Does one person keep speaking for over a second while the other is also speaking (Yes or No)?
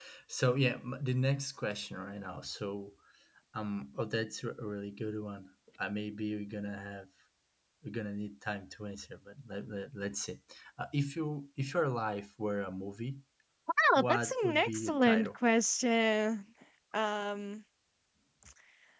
Yes